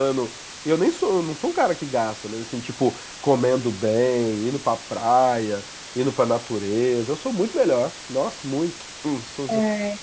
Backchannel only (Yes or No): Yes